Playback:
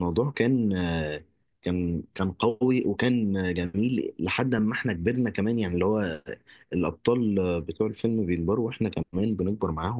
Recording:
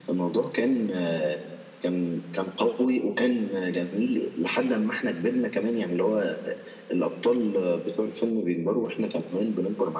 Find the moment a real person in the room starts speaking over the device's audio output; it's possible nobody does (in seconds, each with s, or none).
none